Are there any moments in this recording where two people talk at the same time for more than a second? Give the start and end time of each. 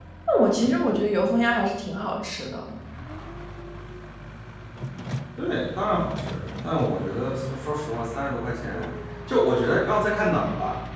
none

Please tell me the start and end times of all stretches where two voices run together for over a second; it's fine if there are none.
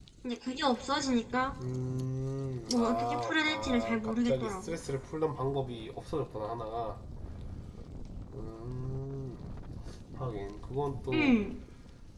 2.7-4.8

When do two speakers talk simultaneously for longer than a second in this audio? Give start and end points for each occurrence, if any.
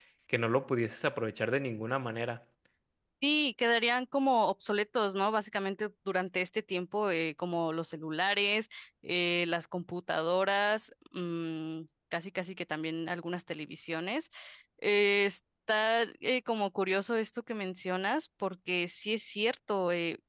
none

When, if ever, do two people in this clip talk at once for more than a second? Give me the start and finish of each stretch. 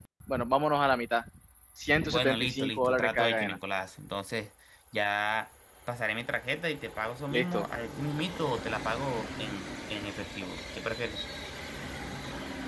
2.1-3.6

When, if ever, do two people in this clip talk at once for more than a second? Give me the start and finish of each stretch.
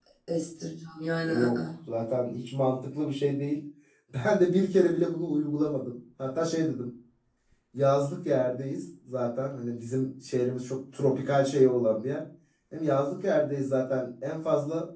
none

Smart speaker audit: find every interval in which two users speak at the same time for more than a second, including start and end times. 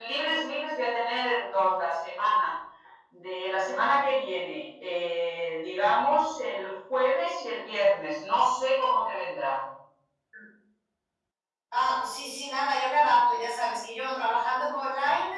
none

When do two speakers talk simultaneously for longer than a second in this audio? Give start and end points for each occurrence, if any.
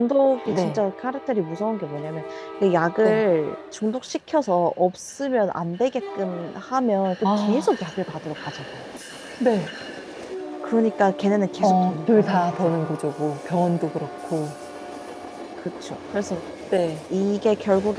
11.6-12.9

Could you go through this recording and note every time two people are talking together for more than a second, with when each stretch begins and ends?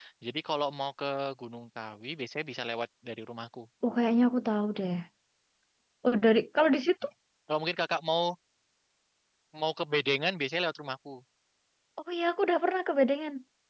none

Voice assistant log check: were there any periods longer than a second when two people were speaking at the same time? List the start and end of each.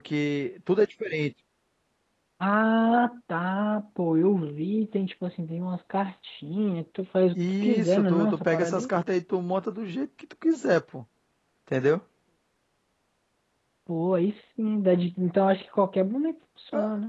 7.6-8.9

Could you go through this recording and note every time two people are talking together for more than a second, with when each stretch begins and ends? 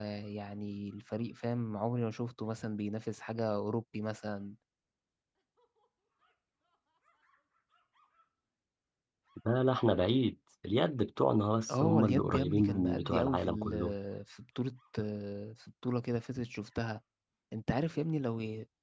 11.7-13.9

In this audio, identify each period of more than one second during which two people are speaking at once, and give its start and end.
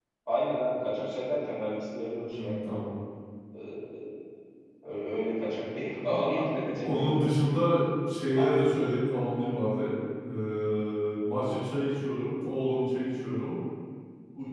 none

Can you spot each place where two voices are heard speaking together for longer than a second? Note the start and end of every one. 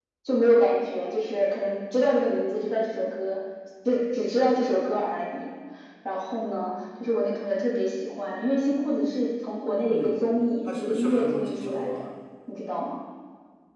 10.7-12.1

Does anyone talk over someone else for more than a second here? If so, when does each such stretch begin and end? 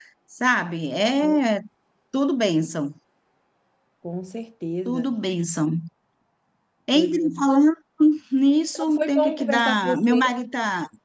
8.8-10.2

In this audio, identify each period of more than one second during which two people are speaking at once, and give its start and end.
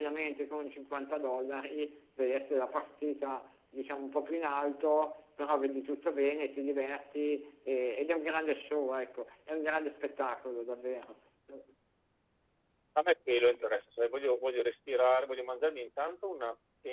none

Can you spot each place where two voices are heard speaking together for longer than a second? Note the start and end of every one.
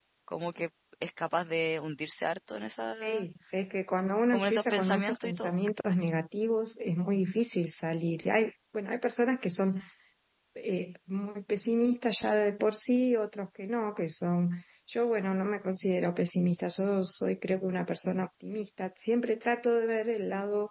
4.3-5.5

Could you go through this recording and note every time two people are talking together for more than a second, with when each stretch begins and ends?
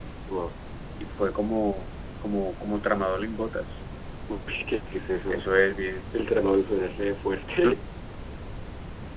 none

